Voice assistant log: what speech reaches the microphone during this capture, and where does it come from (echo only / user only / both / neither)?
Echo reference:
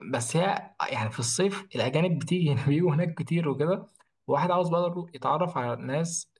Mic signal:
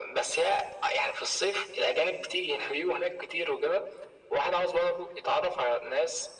echo only